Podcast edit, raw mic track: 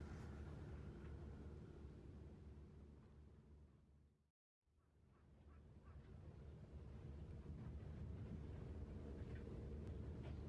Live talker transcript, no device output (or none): none